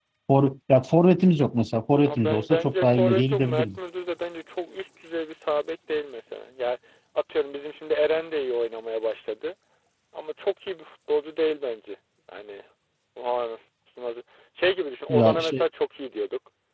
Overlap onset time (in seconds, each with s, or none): 1.9 s